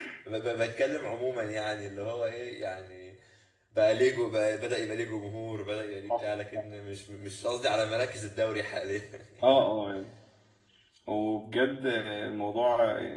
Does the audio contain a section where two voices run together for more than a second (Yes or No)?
No